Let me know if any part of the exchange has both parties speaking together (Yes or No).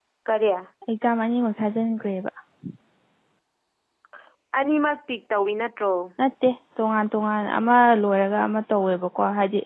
No